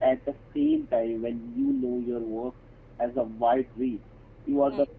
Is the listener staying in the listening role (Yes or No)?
Yes